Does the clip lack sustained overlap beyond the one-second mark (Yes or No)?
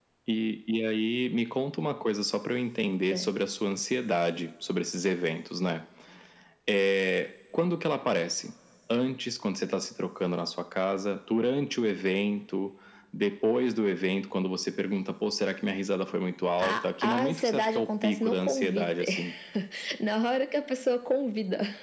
No